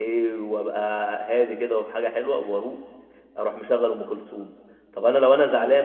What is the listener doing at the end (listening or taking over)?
listening